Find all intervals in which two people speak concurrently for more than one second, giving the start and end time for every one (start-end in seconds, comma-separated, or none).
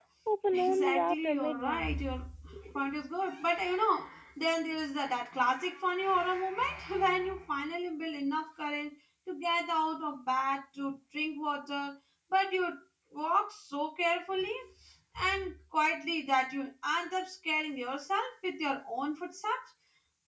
0.5-1.9